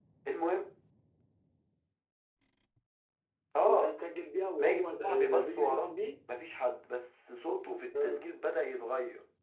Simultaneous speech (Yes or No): Yes